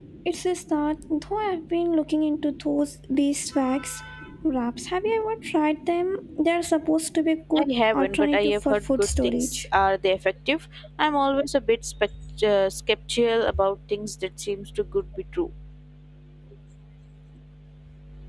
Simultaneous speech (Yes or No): Yes